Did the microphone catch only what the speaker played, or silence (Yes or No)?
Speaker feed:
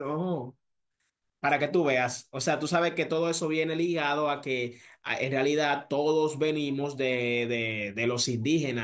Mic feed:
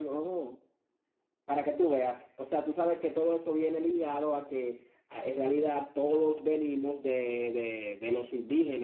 Yes